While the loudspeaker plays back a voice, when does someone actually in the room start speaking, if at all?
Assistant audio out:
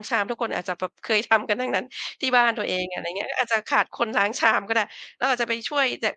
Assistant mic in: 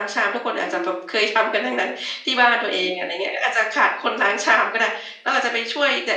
0.7 s

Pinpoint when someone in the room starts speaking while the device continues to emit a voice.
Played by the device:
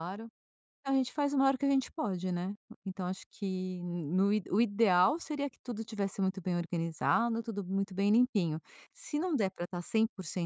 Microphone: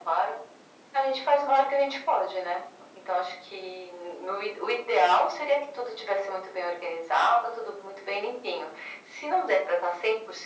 none

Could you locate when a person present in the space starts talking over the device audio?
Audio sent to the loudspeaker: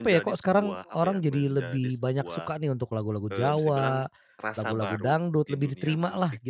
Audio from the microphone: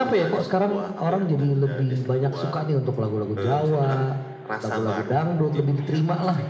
none

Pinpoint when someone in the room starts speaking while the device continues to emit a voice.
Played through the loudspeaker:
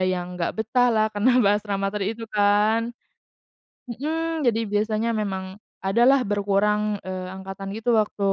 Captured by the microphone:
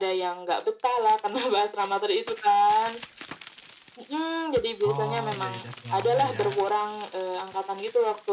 4.8 s

